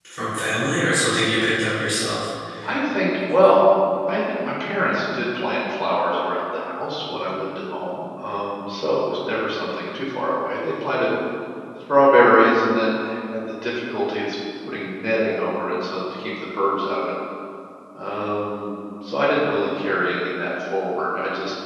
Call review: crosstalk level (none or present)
none